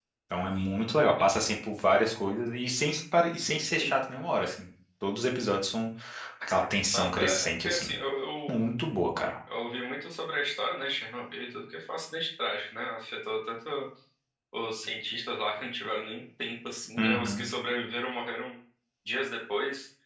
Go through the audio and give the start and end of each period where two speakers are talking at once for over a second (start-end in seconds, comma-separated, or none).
6.6-7.9